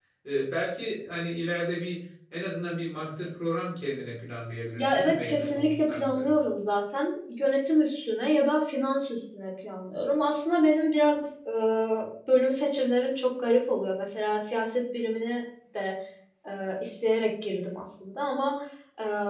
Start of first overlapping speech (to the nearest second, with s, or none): 5 s